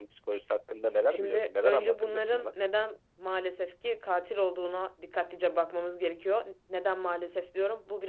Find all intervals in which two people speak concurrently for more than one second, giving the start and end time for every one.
1.1-2.5

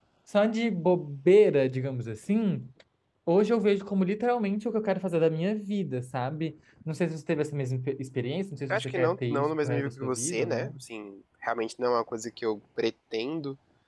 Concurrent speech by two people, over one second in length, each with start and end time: 8.7-10.8

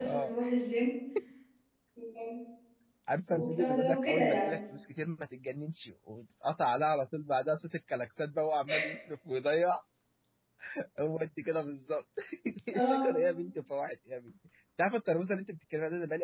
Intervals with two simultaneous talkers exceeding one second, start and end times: 3.3-4.6

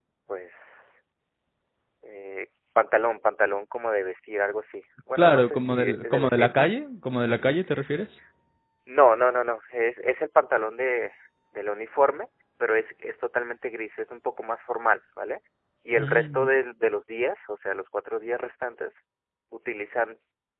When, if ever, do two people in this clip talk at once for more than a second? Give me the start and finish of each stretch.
5.2-6.5

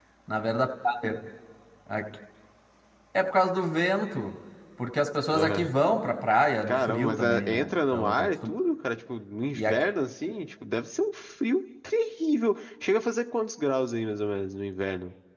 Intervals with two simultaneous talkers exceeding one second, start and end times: 6.6-8.5

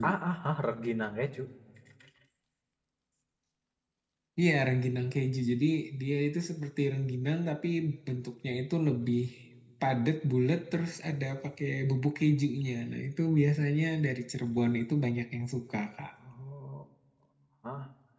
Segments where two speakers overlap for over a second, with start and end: none

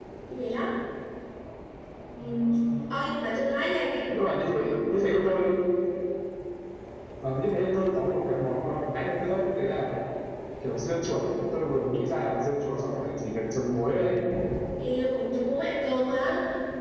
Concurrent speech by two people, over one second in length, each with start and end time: none

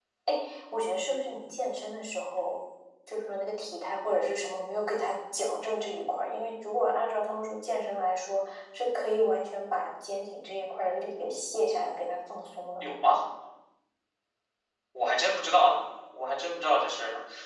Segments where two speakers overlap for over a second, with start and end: none

